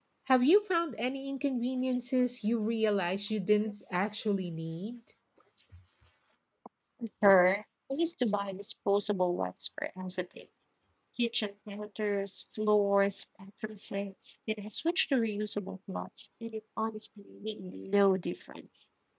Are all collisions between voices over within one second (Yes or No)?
Yes